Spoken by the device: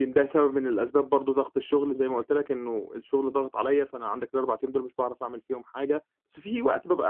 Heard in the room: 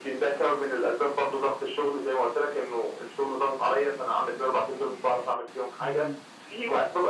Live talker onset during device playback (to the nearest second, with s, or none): 6 s